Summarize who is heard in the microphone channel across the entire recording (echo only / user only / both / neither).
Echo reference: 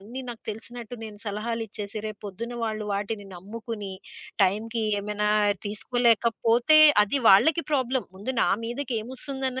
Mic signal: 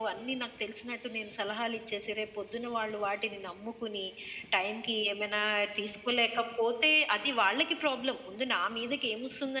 echo only